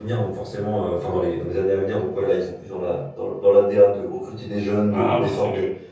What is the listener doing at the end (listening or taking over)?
taking over